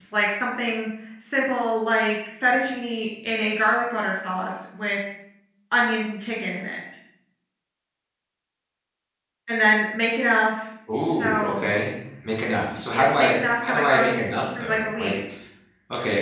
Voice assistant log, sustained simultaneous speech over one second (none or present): present